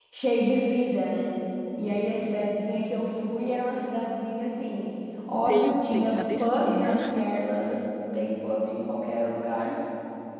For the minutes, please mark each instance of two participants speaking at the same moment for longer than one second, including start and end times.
5.5-7.0

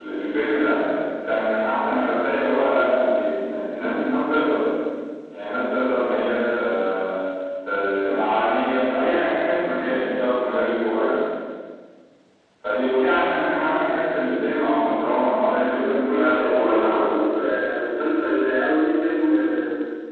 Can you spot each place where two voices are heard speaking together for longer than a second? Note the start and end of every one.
15.7-17.1

